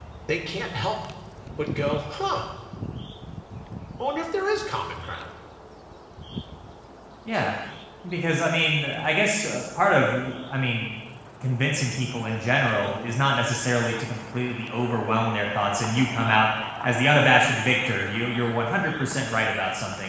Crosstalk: none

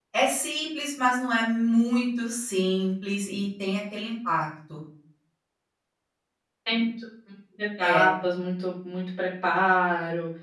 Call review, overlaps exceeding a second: none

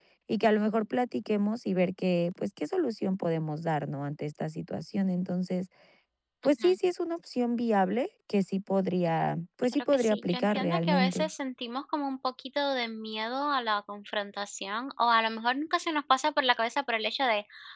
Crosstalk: present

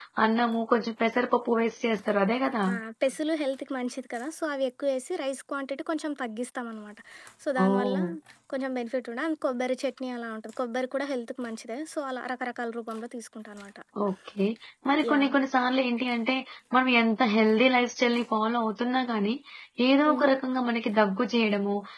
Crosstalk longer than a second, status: none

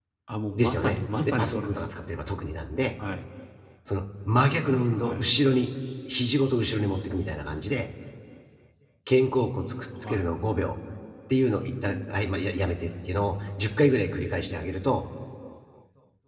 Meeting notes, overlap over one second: present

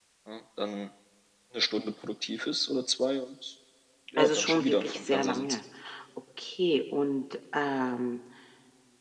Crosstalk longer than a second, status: present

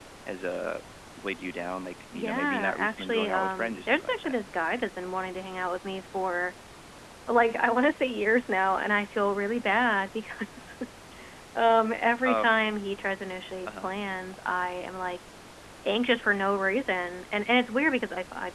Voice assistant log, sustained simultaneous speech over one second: present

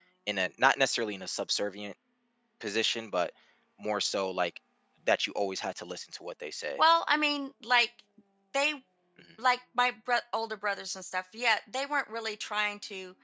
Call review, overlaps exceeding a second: none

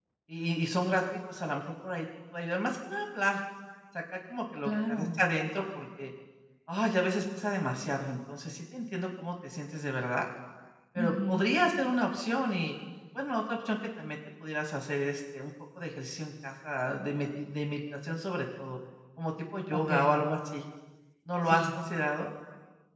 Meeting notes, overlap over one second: none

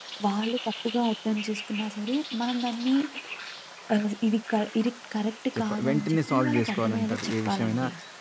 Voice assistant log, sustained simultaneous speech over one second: present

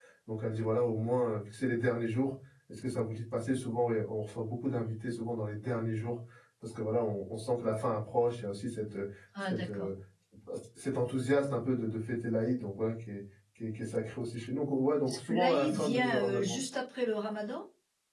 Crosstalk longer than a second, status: present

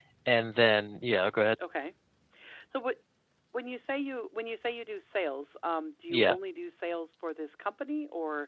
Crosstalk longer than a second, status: none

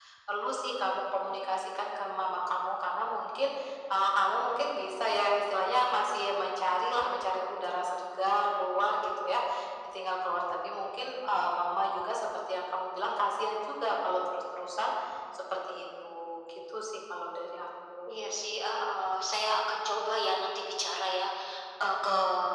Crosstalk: none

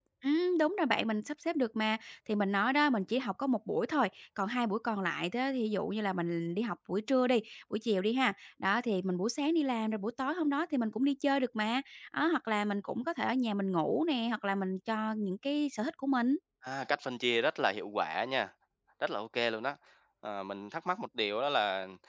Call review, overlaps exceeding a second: none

